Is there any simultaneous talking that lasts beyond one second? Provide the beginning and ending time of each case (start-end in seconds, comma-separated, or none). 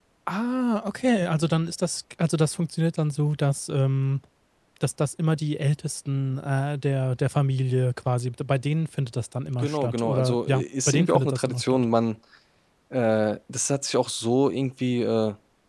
9.6-11.8